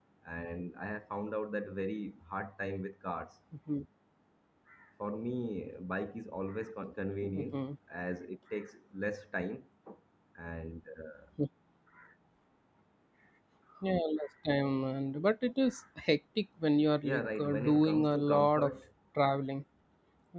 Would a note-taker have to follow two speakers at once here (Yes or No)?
Yes